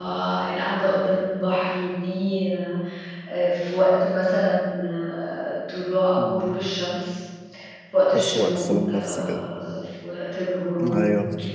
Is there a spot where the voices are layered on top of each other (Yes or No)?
Yes